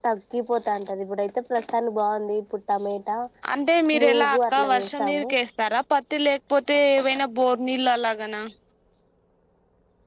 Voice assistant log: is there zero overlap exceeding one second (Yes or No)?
No